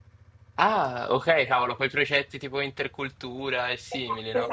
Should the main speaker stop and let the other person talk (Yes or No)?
Yes